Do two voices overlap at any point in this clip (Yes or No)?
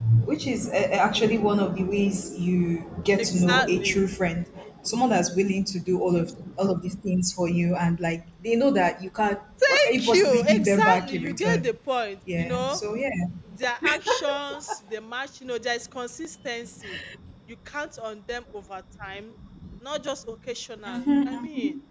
Yes